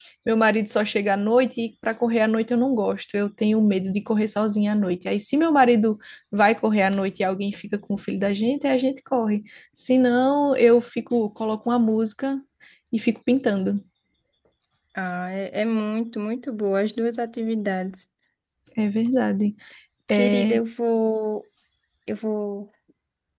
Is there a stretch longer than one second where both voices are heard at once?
No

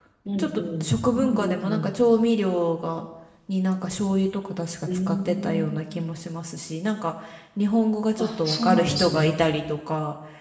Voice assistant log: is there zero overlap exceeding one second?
No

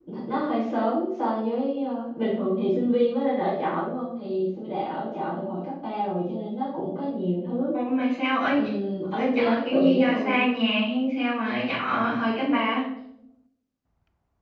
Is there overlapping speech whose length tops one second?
Yes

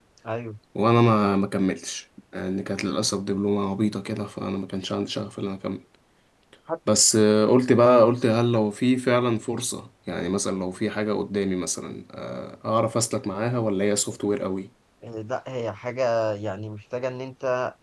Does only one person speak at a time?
Yes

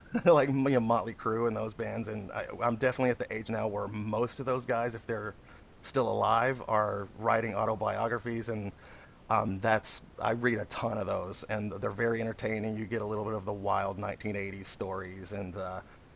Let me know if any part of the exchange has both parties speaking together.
No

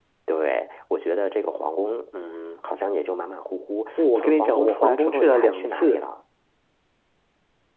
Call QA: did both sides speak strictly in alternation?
No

